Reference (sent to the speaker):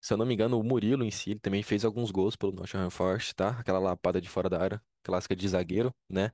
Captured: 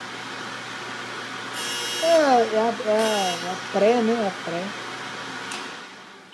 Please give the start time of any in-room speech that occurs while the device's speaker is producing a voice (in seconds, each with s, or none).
2.0 s